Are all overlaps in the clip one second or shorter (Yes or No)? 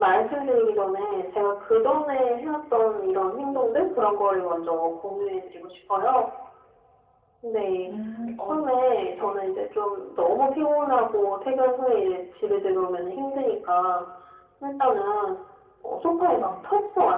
Yes